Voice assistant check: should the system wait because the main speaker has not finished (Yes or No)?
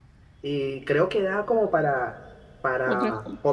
Yes